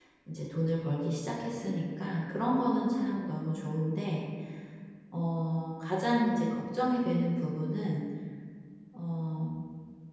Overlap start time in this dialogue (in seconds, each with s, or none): none